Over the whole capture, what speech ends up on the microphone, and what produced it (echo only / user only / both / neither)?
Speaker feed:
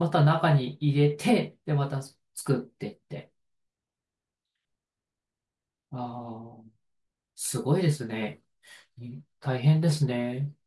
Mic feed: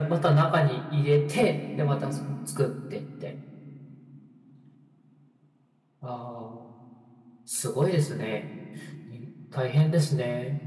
echo only